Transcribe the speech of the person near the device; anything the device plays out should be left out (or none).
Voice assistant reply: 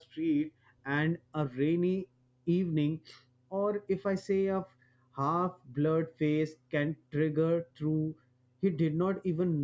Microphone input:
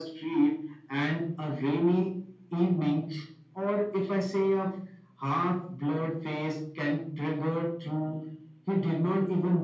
none